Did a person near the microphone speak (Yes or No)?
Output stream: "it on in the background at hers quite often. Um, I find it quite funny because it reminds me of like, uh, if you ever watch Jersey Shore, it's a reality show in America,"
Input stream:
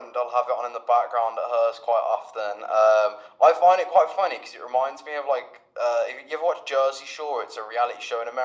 No